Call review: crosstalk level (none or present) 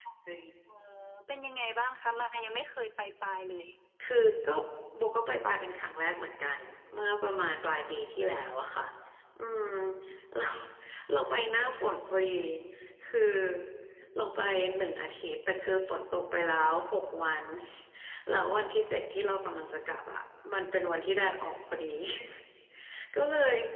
none